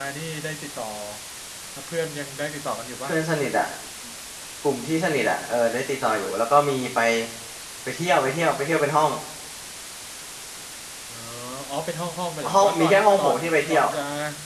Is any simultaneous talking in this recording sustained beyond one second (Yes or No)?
Yes